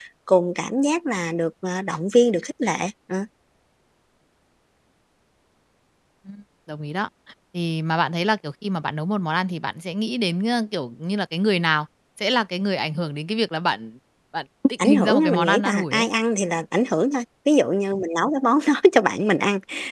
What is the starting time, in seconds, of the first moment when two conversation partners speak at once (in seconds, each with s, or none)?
14.8 s